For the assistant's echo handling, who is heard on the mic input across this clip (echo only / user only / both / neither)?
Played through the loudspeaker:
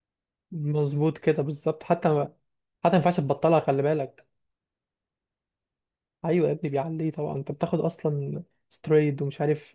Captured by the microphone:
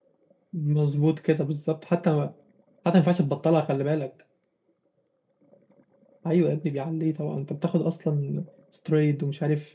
echo only